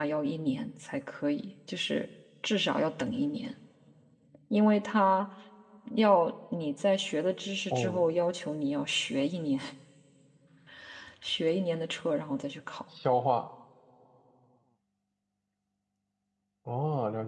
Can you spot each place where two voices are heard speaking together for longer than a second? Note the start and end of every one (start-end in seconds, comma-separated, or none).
none